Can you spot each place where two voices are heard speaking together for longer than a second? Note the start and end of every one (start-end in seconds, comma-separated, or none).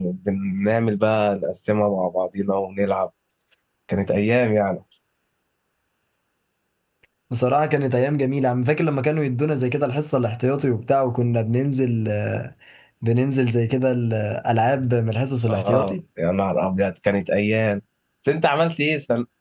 none